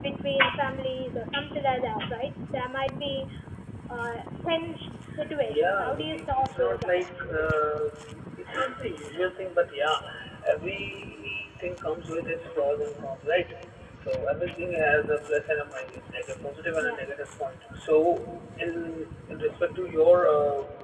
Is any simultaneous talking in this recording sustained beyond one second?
Yes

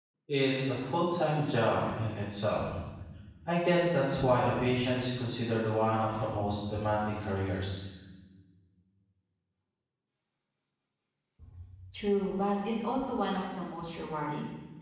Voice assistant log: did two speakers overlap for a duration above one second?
No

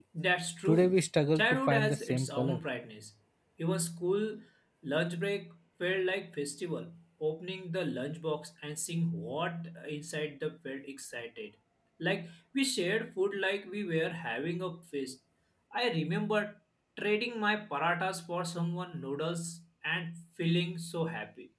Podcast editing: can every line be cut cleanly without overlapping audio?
No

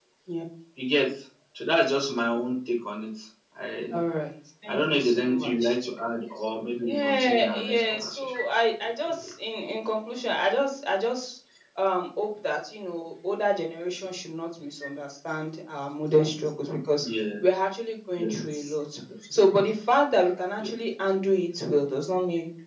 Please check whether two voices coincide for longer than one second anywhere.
Yes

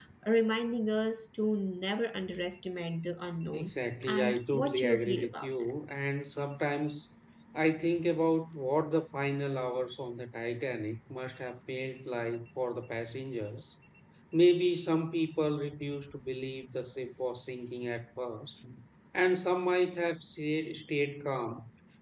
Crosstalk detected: Yes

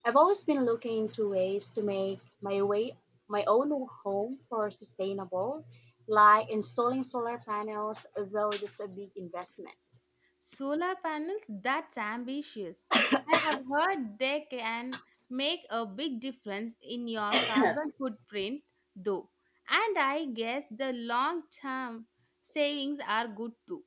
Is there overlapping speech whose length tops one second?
No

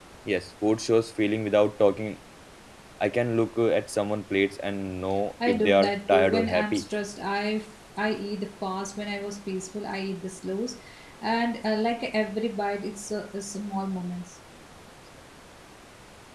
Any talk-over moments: Yes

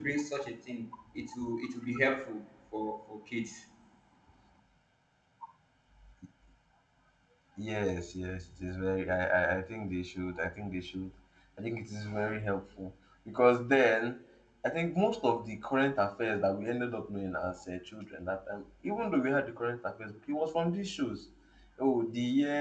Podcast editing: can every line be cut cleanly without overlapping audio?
Yes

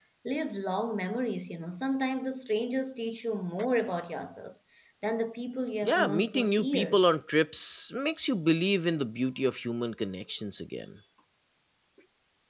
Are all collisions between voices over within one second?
No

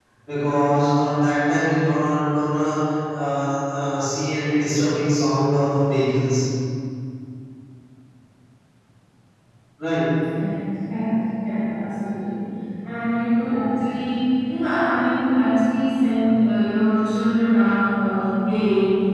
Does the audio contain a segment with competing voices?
No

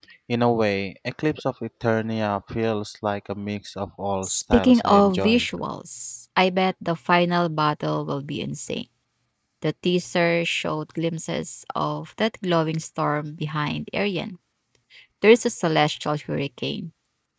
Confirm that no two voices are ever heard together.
No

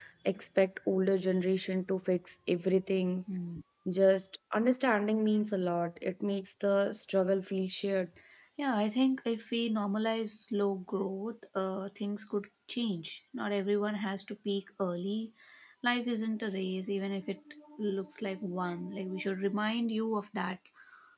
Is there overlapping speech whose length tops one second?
No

